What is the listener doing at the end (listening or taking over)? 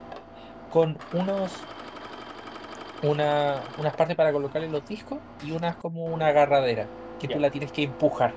listening